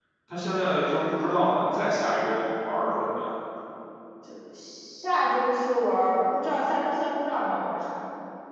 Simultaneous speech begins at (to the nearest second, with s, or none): none